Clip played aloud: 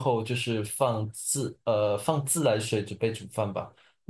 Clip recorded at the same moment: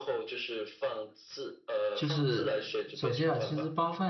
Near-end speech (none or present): present